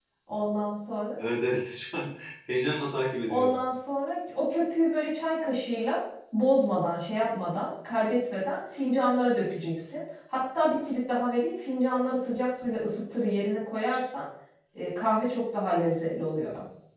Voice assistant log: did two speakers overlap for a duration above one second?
No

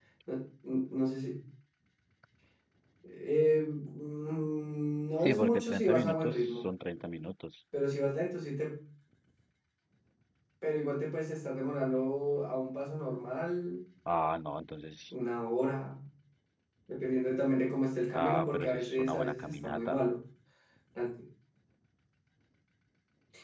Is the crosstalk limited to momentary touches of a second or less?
No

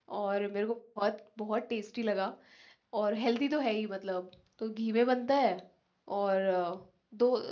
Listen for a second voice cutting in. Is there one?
No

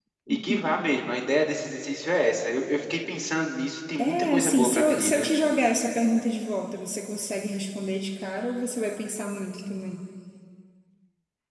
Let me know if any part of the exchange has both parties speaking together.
Yes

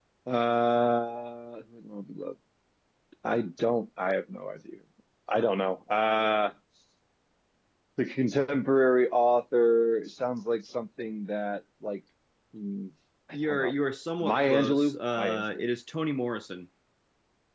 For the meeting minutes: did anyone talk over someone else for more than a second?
Yes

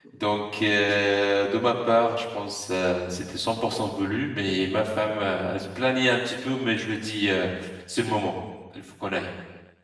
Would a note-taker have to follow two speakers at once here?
No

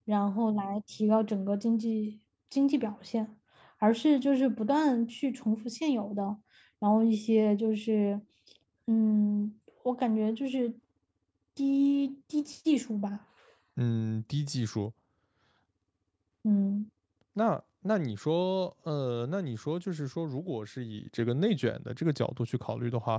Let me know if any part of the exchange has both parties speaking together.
No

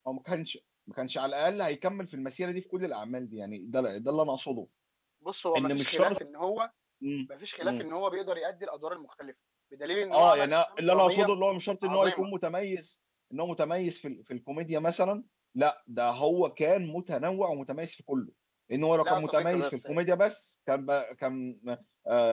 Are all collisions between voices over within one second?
No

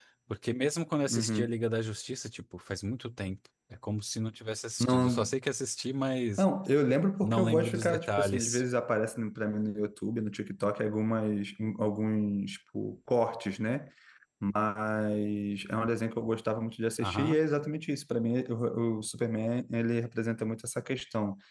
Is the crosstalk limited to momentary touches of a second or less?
No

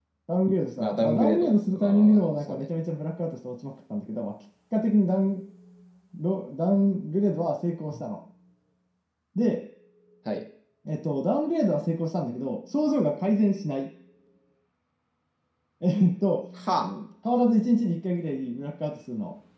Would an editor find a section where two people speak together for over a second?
Yes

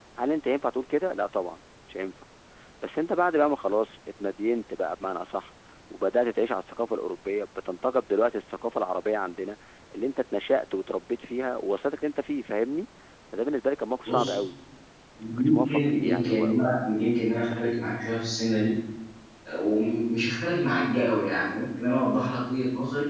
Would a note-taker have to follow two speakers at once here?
Yes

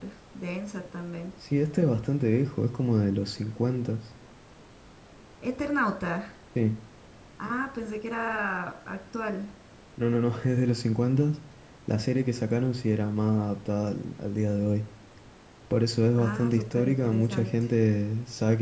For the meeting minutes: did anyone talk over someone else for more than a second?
Yes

